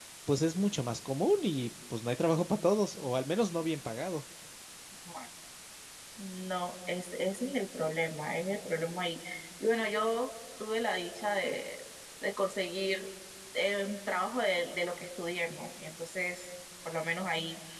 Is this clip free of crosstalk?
Yes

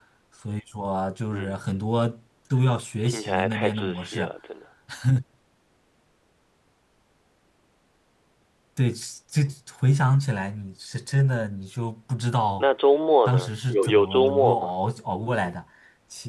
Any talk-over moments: Yes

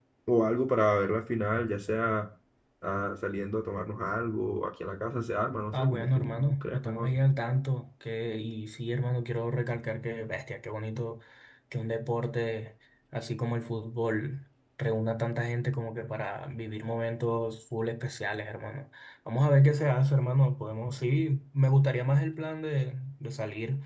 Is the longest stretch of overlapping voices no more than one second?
No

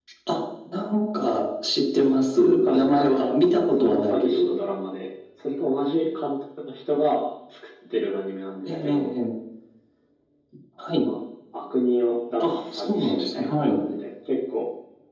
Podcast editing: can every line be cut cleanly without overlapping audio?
No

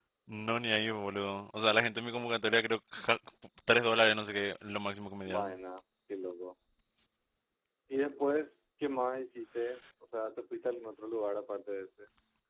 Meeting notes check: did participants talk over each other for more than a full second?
No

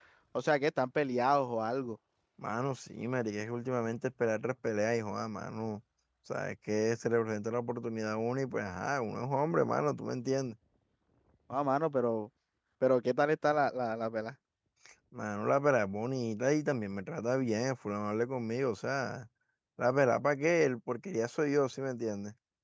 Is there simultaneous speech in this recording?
No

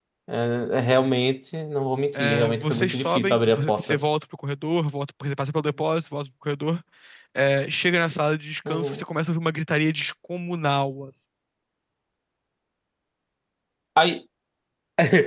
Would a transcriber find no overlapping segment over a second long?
No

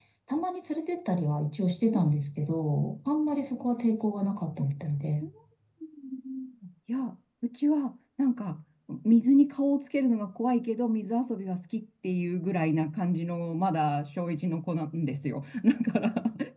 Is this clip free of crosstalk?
Yes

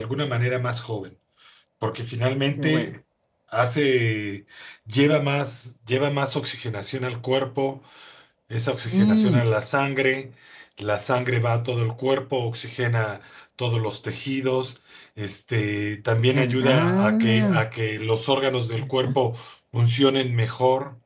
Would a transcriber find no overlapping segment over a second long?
No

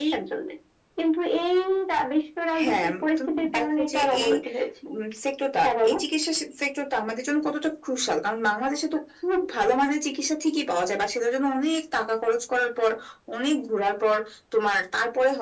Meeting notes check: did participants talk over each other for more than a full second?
Yes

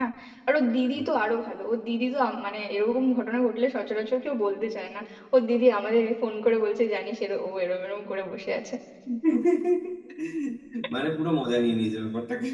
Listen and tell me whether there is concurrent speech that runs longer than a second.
No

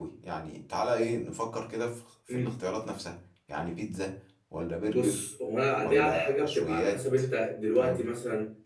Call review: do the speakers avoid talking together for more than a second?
No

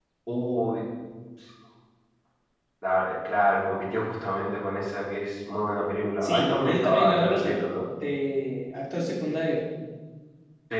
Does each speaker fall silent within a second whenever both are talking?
No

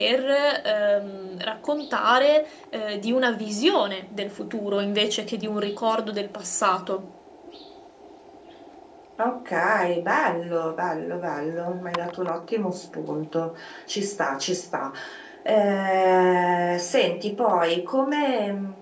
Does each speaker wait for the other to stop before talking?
Yes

